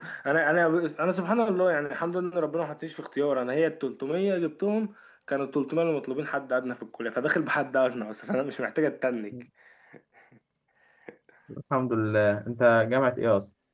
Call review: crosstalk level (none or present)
none